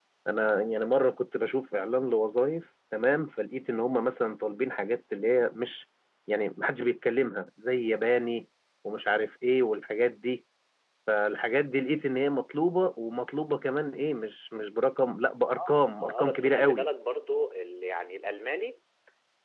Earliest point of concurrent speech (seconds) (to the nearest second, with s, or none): 16 s